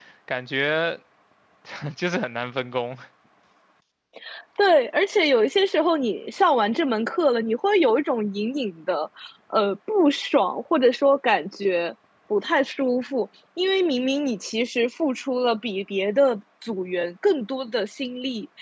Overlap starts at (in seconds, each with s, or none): none